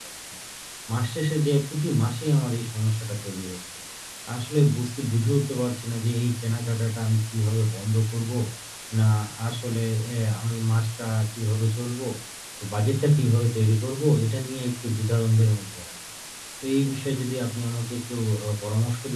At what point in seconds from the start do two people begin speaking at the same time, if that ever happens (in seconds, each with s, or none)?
none